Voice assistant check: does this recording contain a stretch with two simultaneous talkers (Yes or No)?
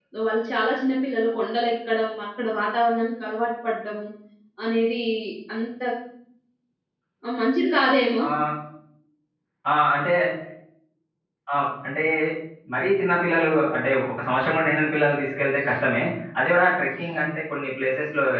No